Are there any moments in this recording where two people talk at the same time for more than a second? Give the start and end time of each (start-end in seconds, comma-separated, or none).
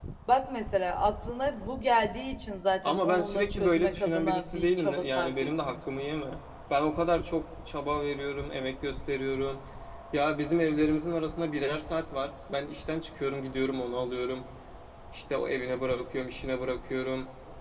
2.8-5.9